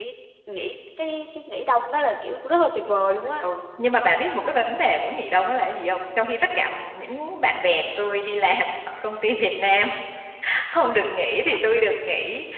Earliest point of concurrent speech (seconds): none

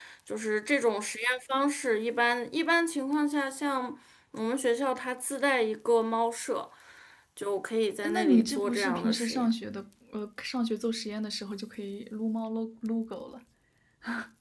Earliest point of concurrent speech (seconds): 8 s

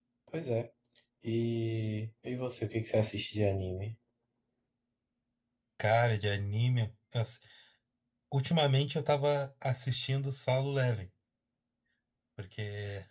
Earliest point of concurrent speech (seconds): none

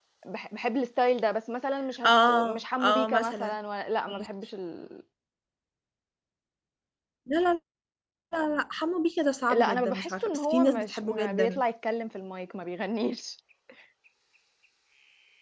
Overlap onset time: 2 s

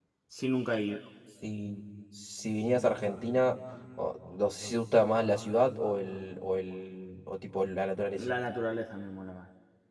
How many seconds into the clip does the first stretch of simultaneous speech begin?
none

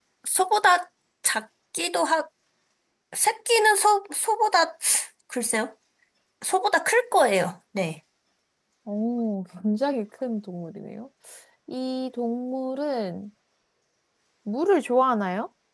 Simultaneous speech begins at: none

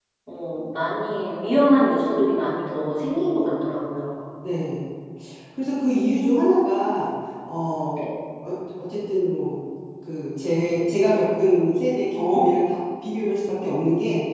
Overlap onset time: none

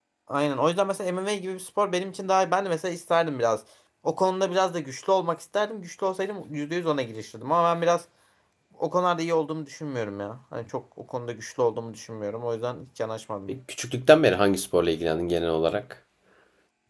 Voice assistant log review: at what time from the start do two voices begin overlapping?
none

